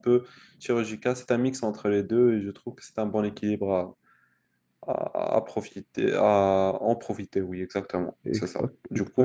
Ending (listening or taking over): taking over